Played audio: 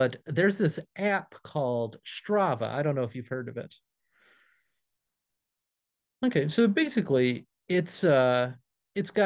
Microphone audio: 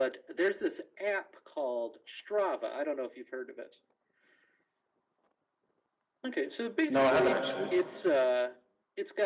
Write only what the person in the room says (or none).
No, I haven't actually.